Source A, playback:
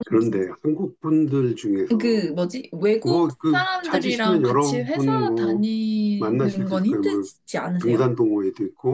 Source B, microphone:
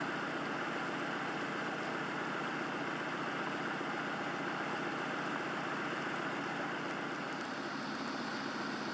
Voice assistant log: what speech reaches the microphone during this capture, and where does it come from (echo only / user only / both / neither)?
neither